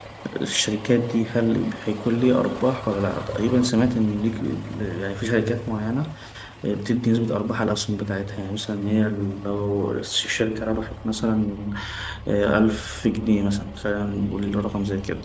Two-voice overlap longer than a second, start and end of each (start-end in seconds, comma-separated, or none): none